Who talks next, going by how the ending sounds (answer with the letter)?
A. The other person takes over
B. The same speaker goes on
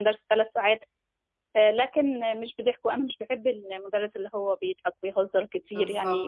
B